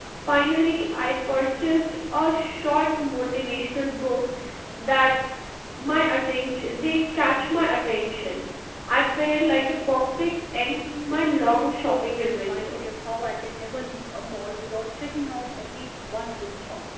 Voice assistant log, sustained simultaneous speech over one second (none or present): present